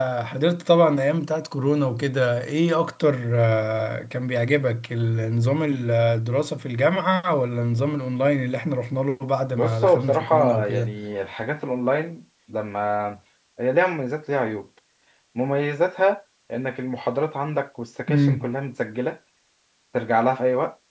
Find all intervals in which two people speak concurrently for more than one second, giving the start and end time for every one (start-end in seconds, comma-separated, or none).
9.5-10.9